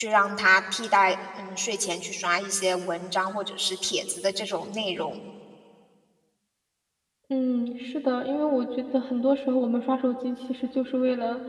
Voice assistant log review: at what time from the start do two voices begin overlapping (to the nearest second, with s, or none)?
none